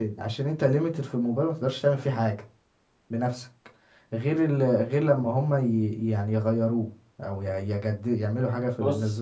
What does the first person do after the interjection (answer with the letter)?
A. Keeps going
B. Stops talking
B